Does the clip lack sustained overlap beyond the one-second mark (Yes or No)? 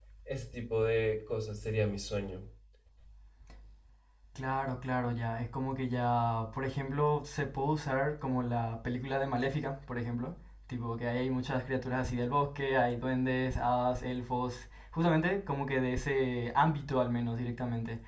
Yes